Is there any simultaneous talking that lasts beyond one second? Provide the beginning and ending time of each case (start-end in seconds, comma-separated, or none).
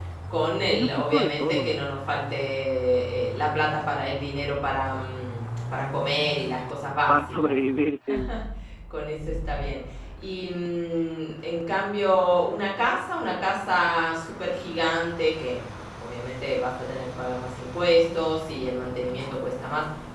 0.6-1.8